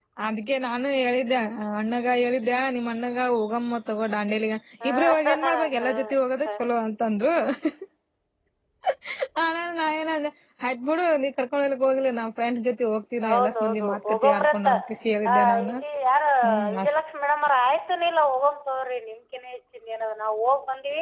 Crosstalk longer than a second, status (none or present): present